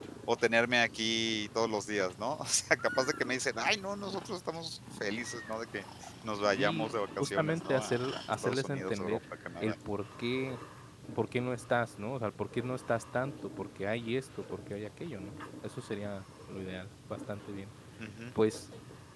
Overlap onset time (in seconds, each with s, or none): 6.6 s